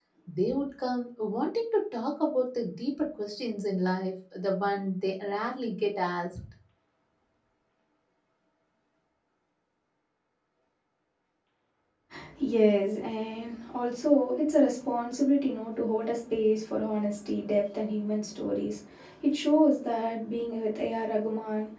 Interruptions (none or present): none